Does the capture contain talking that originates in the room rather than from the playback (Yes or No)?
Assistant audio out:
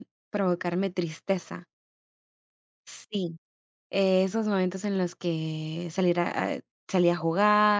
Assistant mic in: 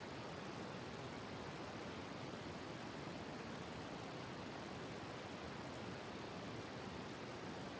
No